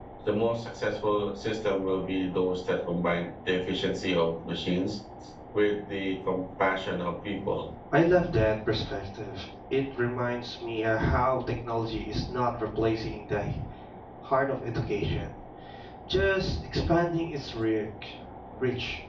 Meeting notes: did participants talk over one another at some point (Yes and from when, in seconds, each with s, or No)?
No